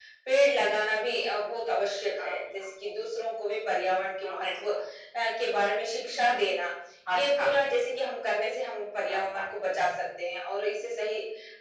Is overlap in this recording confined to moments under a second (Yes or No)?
Yes